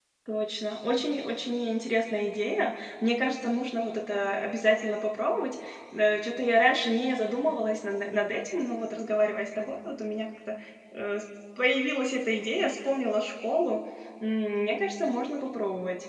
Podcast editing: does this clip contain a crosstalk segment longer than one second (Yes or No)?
No